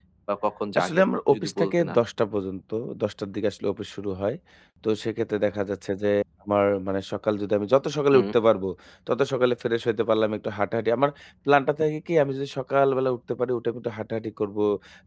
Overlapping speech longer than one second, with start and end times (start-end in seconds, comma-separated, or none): 0.8-2.0